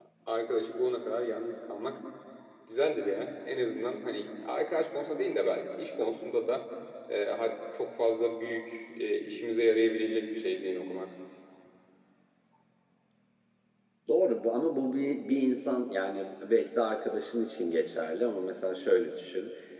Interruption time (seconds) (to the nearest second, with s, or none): none